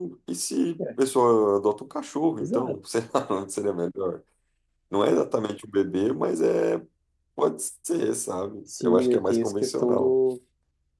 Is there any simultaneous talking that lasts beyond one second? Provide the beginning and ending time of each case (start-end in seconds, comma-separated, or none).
8.8-10.2